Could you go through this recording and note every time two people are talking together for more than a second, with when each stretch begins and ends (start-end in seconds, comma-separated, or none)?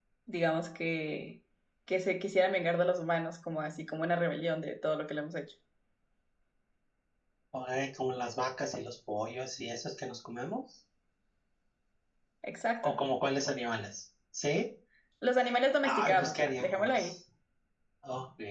15.8-17.1